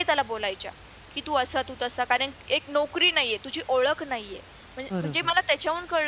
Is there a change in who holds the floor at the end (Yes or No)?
No